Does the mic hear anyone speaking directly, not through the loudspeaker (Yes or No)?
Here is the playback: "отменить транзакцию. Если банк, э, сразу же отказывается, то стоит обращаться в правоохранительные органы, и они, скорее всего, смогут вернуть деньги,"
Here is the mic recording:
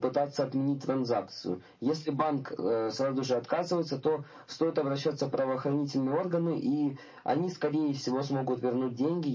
No